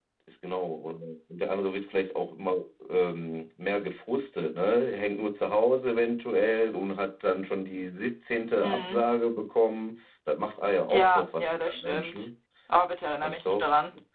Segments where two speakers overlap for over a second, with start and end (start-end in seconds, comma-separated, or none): 10.9-12.2